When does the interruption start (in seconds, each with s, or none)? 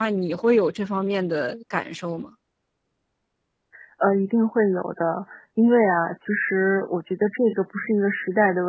none